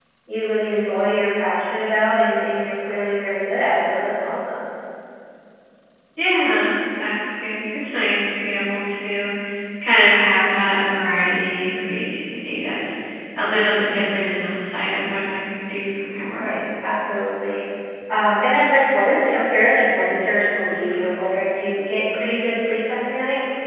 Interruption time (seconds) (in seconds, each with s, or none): none